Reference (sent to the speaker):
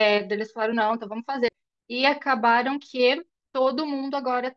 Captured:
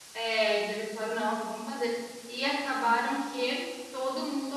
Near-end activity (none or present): none